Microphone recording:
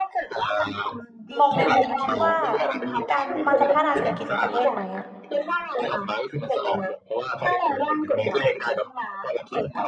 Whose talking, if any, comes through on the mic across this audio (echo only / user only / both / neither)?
both